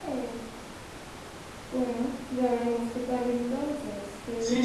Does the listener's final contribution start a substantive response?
Yes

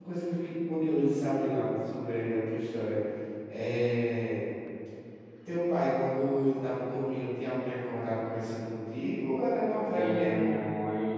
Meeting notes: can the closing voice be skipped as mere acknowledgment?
No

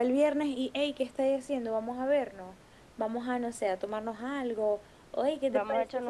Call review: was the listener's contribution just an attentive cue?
No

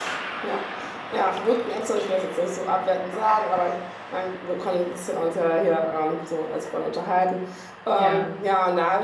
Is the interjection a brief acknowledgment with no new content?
Yes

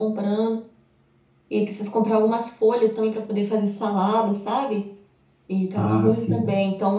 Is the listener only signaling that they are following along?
Yes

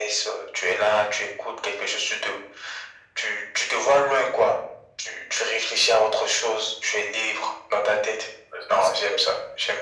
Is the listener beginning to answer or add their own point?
Yes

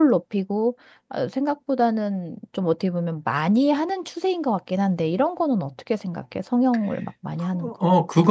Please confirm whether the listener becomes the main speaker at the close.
Yes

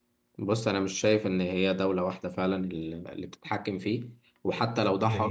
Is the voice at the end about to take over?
No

